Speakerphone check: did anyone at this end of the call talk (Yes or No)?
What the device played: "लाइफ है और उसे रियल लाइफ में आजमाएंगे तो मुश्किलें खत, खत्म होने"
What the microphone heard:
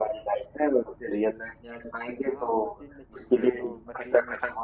Yes